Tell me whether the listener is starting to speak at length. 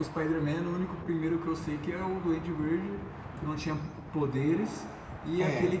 No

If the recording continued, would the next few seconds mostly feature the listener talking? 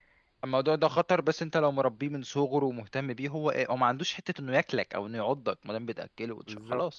No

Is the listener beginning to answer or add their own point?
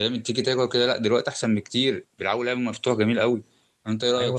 Yes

